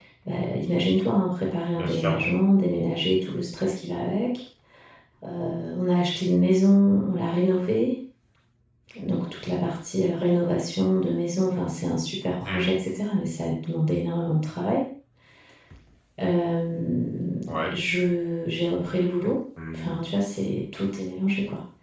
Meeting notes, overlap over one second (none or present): none